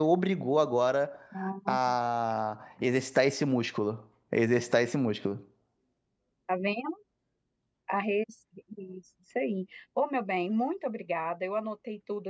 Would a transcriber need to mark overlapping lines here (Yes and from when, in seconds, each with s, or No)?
No